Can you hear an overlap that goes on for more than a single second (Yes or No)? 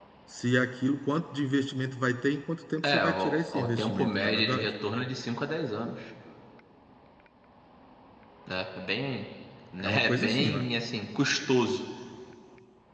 Yes